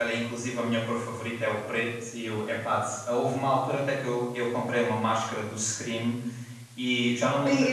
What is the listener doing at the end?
listening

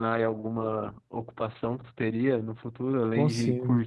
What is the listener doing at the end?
listening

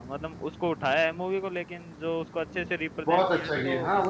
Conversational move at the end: taking over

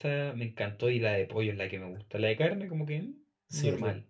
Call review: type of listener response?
taking over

